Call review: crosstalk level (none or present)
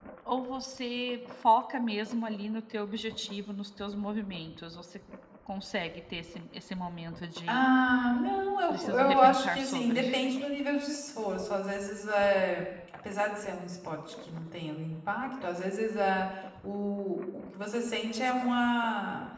present